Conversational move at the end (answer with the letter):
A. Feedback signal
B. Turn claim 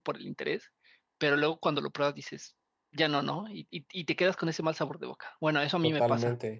B